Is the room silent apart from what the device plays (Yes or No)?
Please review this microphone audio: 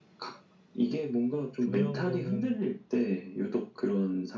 No